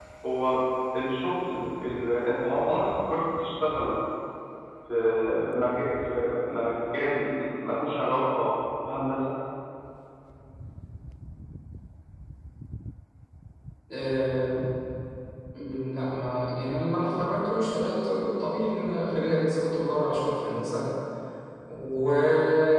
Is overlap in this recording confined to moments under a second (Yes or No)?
Yes